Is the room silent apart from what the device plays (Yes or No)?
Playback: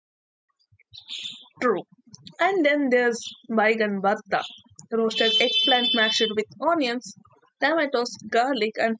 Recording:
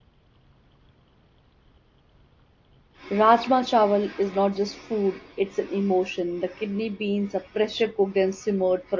No